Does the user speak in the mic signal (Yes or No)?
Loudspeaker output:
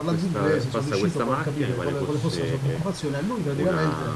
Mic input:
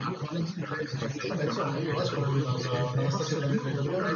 Yes